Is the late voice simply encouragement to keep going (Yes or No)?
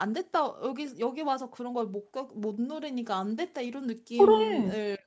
Yes